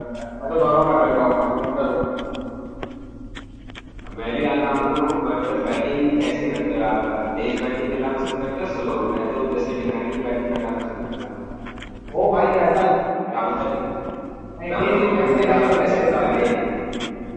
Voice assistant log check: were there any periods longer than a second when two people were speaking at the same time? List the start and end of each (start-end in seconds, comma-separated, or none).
14.8-16.5